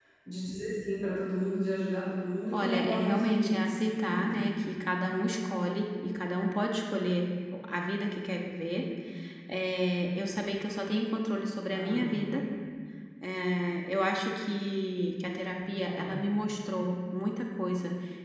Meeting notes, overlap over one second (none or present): present